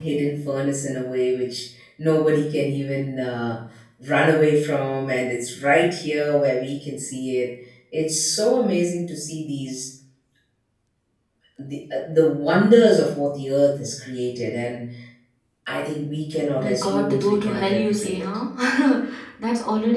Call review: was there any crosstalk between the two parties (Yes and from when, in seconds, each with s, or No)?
Yes, from 16.6 s